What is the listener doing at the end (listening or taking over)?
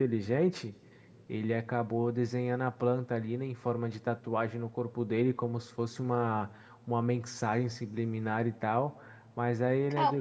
listening